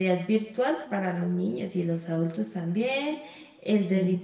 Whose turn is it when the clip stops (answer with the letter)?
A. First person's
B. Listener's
A